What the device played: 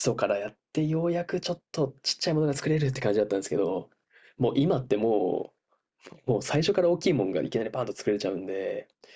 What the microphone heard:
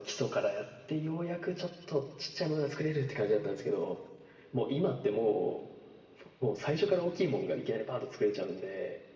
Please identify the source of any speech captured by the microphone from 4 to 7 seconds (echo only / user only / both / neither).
echo only